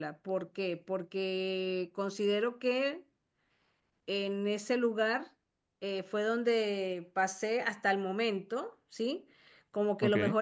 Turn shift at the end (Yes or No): No